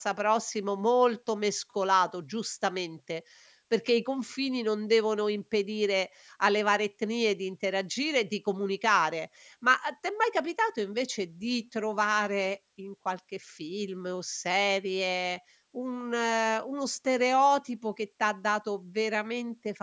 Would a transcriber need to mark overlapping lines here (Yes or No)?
No